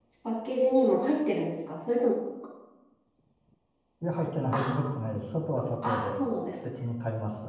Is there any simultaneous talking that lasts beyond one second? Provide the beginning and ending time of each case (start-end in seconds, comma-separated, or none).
none